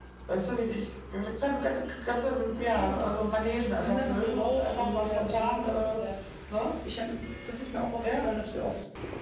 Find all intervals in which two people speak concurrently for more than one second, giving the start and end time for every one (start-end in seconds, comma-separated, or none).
3.8-6.0